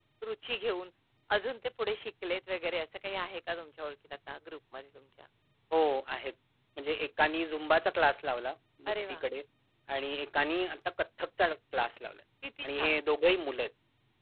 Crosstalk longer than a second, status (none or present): none